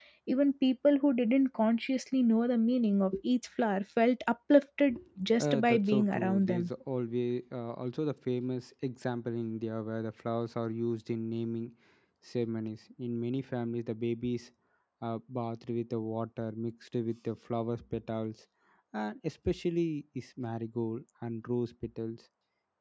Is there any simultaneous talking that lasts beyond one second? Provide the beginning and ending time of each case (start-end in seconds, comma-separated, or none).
5.4-6.7